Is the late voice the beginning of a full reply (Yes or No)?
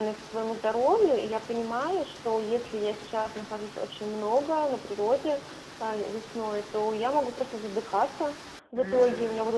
No